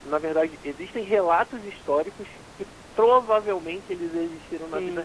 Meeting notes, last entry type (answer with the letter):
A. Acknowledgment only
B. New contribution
B